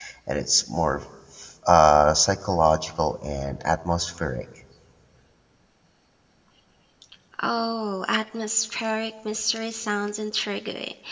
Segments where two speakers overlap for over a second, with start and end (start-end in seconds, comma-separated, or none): none